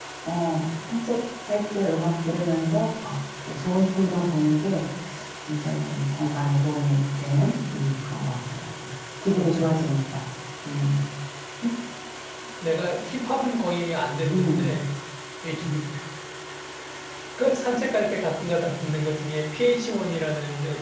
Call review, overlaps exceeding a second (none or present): none